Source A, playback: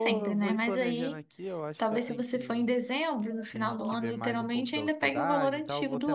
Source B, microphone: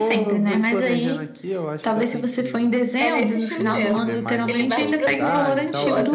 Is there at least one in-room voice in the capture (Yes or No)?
Yes